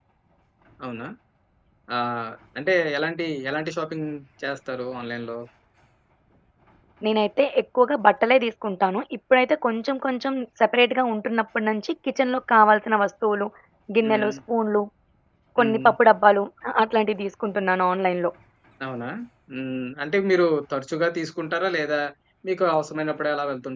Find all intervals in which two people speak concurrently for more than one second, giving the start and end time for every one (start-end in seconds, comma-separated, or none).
none